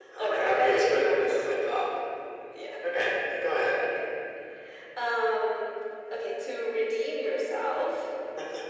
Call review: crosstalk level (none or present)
present